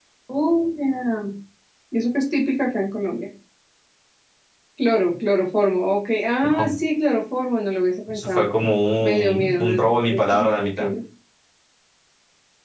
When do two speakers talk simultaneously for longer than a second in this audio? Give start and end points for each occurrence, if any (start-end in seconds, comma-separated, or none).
9.2-10.9